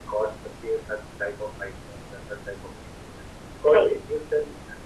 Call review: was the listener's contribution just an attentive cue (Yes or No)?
Yes